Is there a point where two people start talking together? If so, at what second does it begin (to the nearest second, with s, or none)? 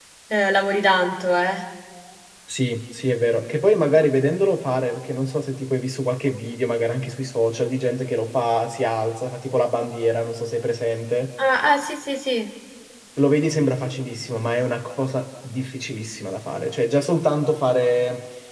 none